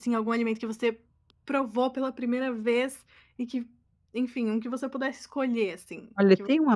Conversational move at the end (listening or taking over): taking over